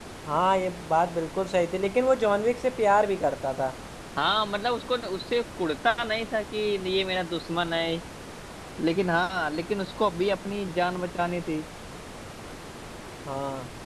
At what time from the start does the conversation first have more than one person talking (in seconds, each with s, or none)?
none